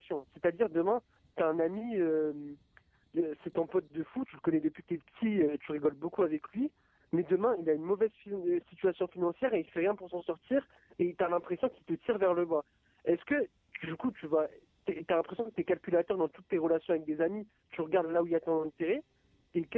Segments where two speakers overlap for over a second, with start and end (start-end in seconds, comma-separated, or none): none